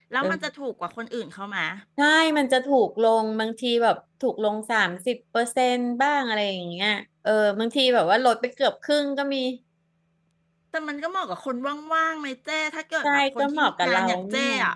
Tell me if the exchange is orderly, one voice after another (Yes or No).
No